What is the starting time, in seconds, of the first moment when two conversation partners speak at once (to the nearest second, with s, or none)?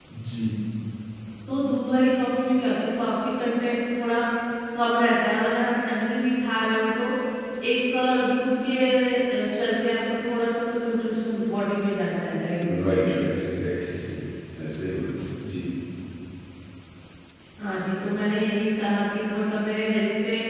none